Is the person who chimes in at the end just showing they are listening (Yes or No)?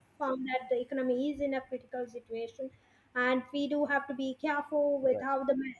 Yes